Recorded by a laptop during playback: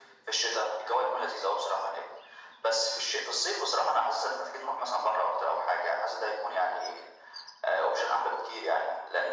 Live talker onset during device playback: none

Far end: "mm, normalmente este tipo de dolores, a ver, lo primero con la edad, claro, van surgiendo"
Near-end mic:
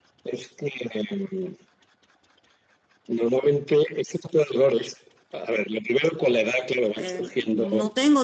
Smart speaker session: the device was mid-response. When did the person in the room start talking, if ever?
7 s

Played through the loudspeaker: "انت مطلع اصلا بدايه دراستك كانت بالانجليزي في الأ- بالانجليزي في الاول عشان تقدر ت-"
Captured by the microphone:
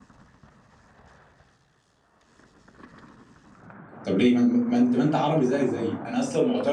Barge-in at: 4 s

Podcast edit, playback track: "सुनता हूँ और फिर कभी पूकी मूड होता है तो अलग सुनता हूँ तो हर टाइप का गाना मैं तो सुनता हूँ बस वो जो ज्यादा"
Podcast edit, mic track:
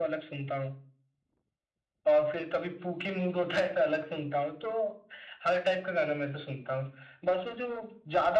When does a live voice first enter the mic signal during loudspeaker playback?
none

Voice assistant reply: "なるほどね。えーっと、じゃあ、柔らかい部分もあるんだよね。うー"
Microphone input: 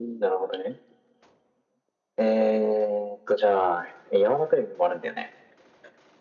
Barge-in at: none

